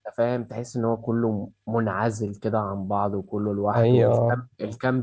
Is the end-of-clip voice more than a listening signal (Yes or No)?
No